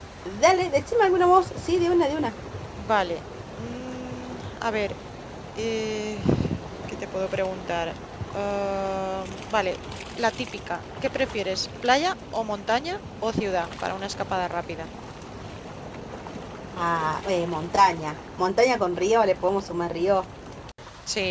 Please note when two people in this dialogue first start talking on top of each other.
none

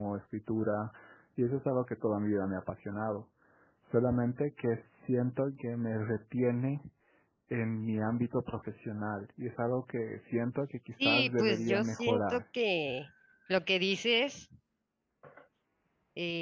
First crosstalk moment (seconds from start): 11.0 s

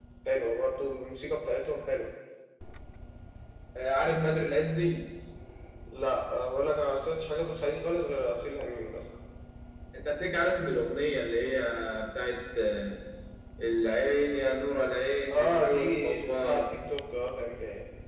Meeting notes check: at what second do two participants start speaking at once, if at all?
15.3 s

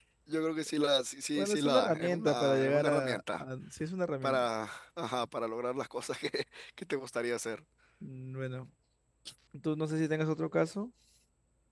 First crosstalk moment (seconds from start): 1.4 s

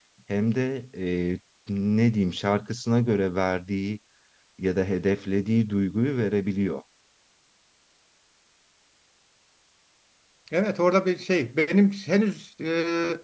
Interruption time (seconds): none

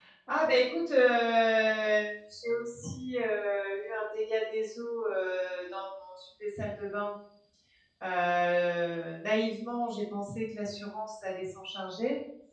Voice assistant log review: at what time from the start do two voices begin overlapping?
none

